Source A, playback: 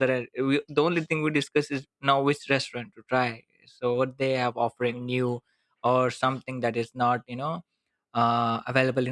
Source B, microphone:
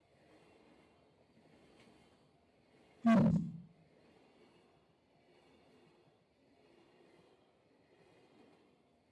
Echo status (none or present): none